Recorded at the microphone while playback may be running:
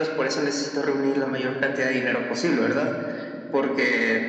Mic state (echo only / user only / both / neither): both